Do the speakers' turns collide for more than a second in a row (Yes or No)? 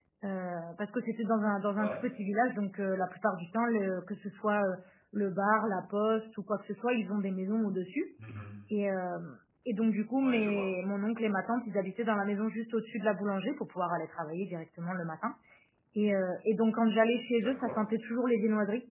No